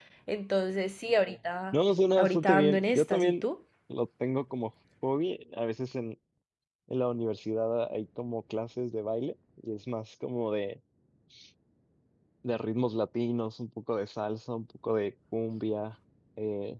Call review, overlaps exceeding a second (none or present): present